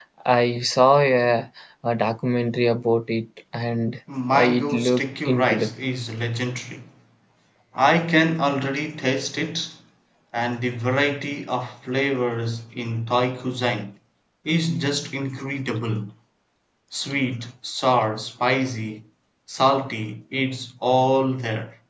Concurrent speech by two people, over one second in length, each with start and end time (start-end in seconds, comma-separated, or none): 4.3-5.7